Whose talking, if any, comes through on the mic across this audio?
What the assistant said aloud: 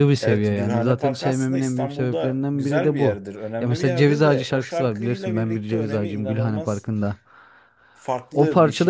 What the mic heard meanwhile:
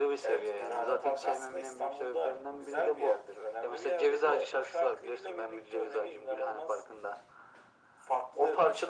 echo only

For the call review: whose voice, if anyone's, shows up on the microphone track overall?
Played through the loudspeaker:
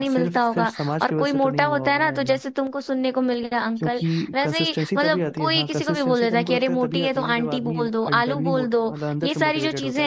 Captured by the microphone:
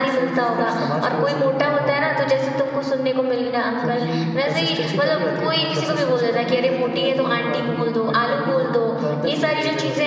echo only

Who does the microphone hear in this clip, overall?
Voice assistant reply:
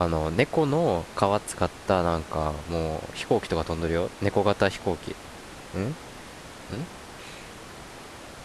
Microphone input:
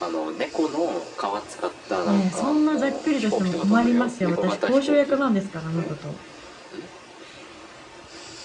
both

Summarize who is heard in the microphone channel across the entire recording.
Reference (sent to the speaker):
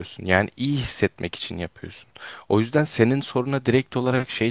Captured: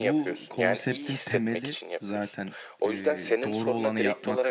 both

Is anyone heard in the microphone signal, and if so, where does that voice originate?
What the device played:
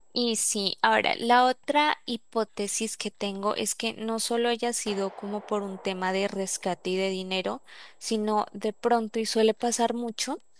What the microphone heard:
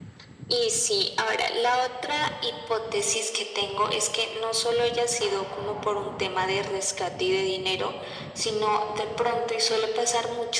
echo only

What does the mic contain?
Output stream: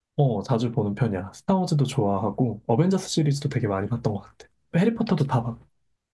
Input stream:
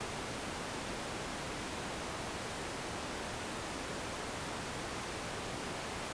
neither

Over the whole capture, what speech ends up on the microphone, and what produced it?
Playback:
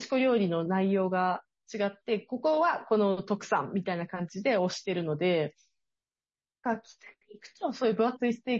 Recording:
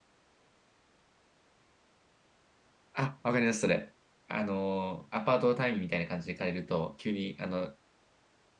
user only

